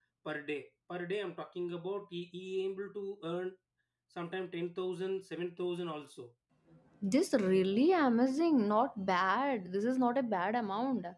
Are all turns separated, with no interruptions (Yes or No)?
Yes